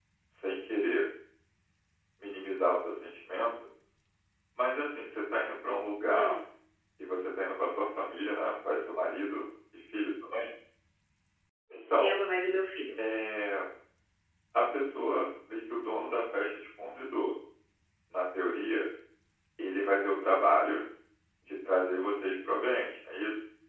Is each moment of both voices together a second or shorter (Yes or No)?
Yes